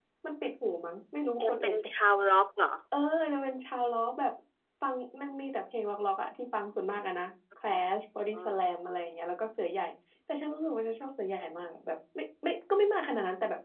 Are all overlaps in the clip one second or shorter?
Yes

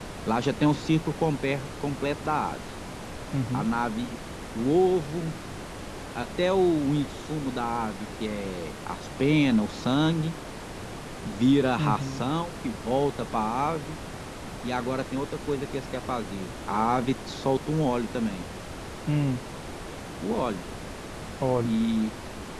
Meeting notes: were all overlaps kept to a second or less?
Yes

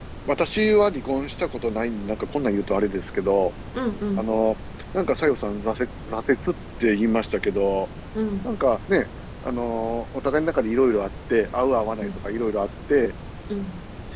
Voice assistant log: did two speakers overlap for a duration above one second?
No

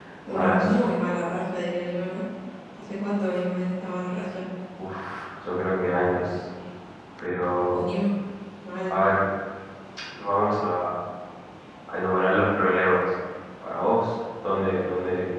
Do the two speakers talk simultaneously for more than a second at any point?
No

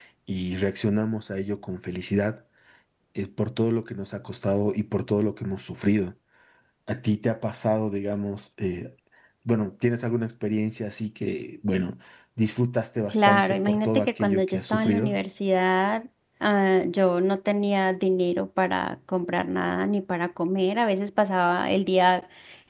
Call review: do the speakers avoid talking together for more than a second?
No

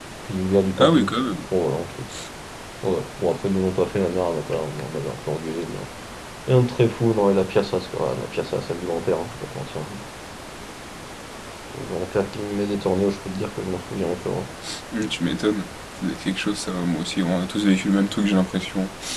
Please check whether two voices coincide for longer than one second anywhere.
No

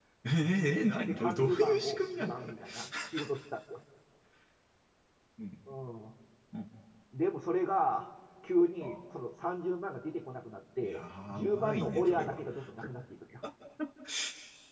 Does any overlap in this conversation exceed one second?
Yes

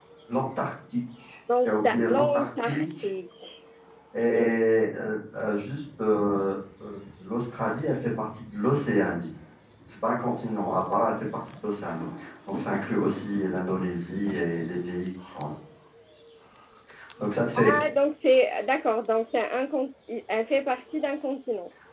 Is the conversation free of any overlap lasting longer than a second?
No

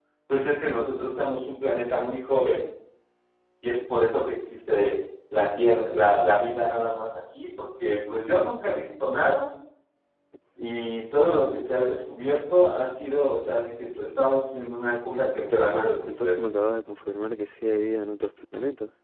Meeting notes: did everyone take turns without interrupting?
No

